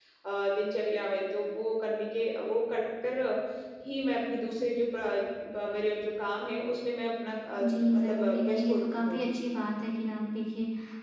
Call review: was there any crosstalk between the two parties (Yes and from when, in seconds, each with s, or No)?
Yes, from 7.6 s